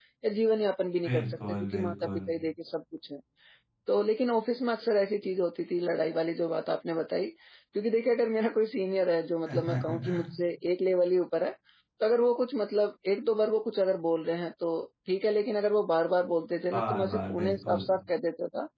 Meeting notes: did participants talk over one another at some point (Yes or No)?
Yes